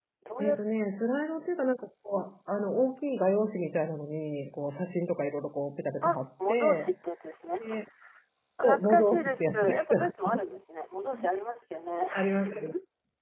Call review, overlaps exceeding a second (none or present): present